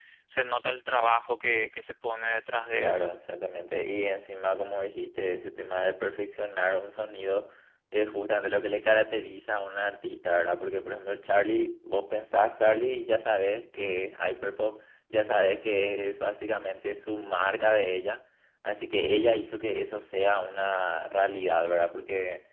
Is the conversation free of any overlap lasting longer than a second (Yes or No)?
Yes